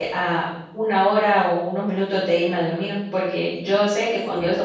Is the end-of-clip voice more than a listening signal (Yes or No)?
No